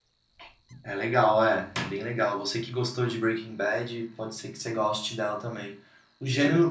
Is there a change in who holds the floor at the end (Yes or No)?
No